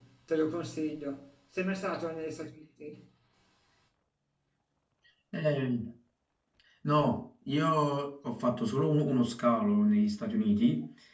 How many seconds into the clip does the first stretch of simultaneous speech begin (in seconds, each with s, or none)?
none